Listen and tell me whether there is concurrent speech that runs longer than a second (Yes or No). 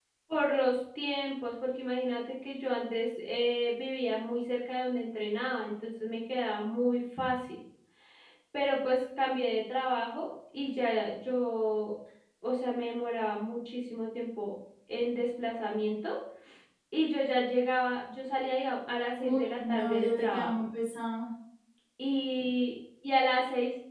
Yes